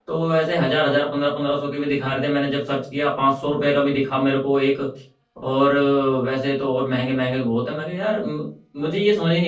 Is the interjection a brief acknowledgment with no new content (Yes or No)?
Yes